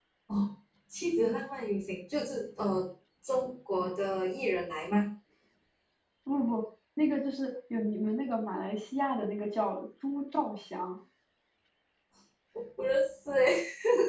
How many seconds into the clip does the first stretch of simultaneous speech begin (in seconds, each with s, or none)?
none